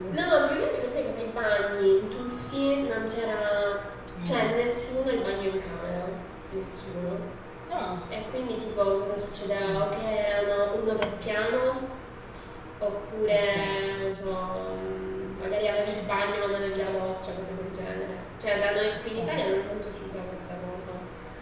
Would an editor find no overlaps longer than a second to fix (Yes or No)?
Yes